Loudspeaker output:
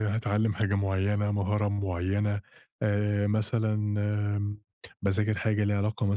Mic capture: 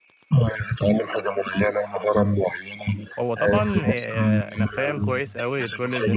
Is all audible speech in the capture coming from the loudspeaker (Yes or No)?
No